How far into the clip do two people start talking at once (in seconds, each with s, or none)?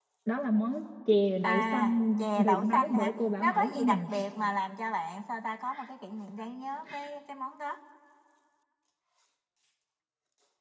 1.4 s